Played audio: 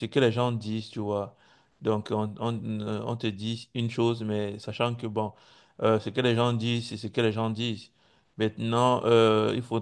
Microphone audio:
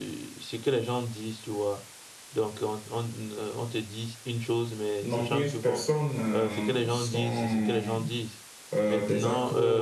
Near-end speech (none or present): present